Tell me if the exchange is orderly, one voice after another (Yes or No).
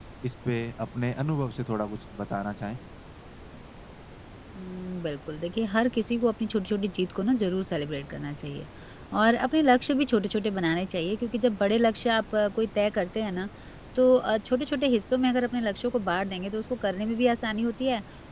Yes